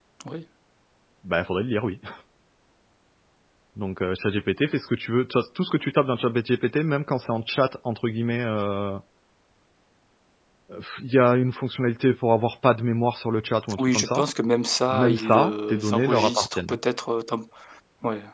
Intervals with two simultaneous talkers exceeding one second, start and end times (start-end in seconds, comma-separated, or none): 14.9-16.8